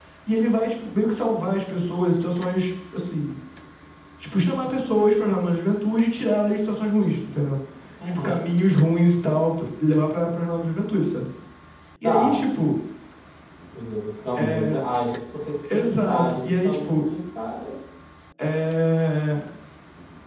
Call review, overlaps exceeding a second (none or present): present